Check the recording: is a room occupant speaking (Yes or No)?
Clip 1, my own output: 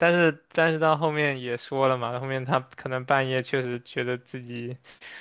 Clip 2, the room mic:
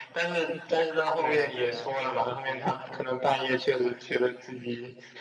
Yes